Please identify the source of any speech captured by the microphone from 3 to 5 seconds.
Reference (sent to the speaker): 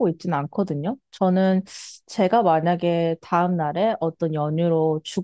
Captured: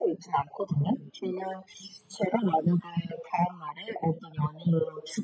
echo only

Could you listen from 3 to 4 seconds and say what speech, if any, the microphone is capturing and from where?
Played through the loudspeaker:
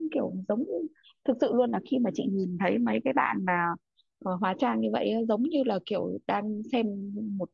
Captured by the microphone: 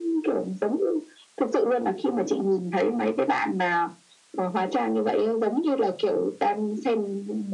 echo only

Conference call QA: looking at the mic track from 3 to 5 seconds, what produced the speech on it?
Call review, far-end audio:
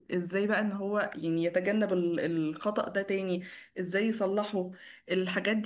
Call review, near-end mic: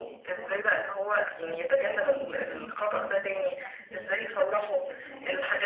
both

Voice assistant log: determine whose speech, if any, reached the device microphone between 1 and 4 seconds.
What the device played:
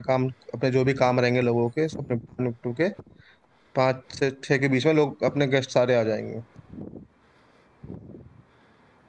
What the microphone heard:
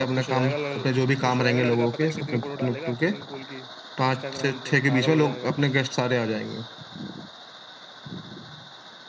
both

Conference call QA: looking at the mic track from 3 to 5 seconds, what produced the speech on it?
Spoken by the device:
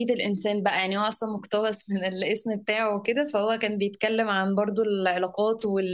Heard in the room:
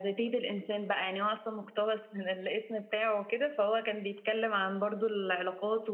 echo only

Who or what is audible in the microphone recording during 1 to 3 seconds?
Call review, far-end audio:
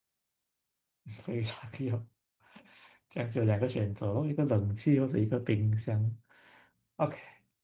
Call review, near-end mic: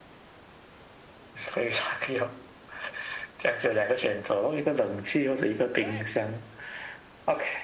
echo only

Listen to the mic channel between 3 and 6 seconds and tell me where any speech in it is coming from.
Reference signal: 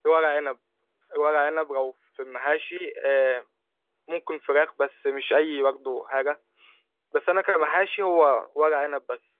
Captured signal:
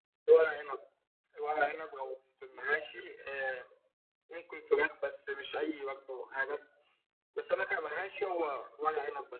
echo only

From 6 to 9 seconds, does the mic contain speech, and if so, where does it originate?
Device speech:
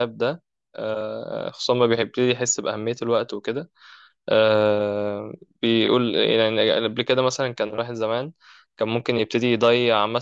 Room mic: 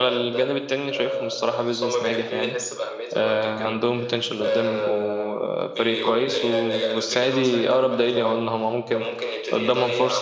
both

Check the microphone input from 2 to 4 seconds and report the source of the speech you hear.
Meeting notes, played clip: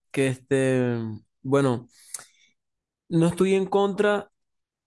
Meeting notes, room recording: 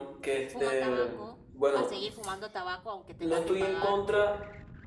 both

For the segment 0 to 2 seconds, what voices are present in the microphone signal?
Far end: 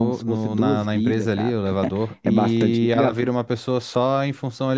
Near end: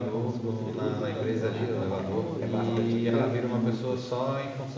both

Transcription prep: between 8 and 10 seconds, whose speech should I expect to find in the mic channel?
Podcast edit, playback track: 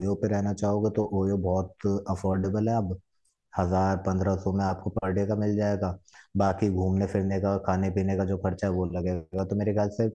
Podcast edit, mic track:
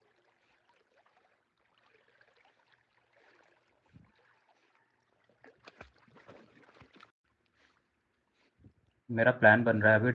user only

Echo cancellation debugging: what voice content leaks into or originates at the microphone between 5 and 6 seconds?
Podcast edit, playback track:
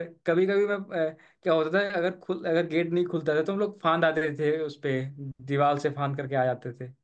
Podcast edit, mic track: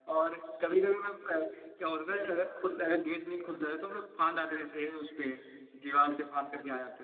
echo only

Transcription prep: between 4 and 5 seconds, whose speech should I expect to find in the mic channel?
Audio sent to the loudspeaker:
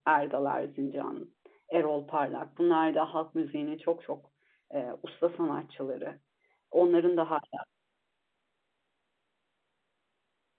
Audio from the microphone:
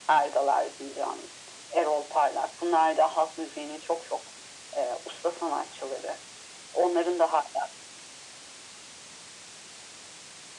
echo only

